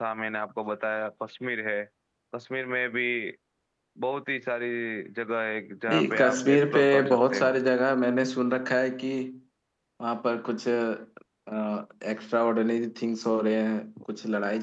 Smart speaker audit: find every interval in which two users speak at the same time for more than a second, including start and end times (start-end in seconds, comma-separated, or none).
5.9-7.6